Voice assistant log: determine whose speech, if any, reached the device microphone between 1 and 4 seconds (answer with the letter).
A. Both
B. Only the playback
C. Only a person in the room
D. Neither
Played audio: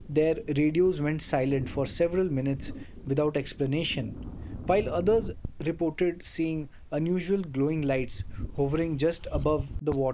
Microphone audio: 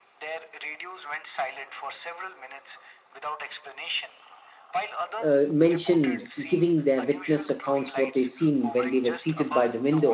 B